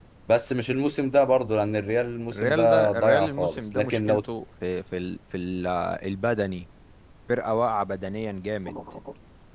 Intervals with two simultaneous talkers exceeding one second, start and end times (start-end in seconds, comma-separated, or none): 2.3-4.0